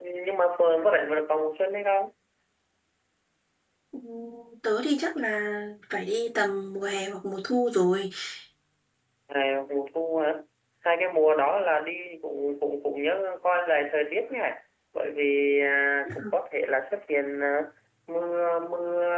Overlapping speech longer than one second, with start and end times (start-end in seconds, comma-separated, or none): none